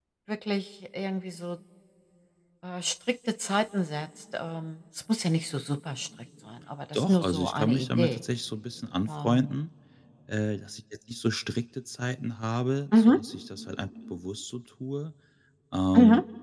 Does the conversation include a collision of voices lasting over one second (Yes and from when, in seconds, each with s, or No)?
Yes, from 6.9 s